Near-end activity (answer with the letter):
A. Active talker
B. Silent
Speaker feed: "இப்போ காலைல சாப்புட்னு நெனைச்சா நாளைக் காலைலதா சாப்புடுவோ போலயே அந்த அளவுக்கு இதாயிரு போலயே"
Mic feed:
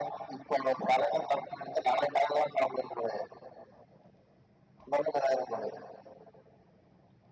B